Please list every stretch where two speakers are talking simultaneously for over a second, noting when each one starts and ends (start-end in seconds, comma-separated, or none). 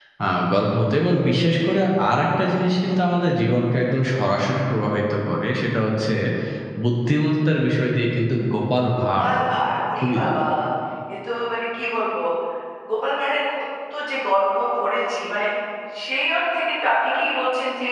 none